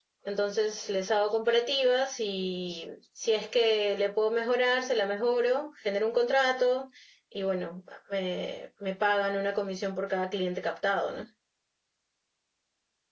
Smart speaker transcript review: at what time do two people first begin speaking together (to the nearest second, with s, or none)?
none